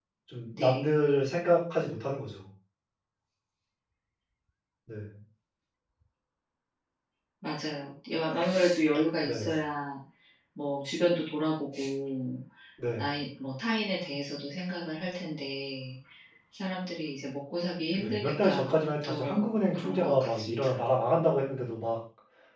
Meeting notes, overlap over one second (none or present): present